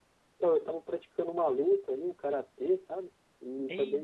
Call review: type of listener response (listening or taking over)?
listening